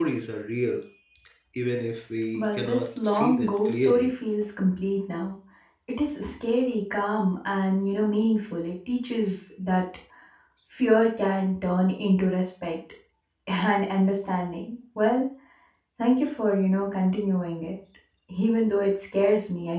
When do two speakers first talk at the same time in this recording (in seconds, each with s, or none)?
2.3 s